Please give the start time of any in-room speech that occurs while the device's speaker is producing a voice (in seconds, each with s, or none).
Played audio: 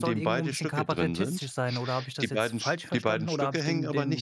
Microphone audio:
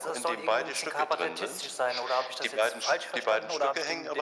none